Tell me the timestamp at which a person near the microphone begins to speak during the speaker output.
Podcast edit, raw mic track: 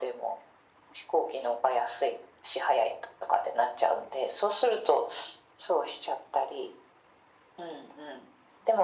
none

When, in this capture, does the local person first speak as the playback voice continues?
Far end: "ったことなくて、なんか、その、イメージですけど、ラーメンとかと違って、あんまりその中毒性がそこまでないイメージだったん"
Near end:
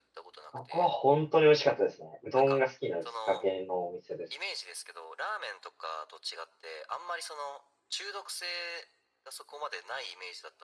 0.5 s

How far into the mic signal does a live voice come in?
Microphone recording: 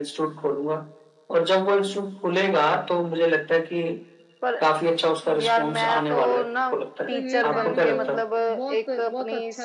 7.1 s

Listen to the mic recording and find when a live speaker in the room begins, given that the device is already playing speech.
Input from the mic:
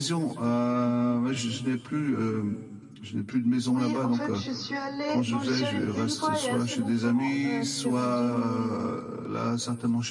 none

